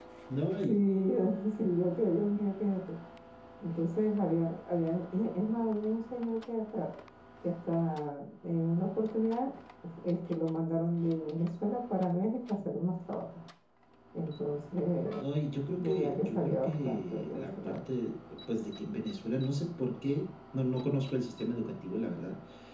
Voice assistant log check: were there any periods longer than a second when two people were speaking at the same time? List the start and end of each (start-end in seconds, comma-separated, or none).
15.8-17.8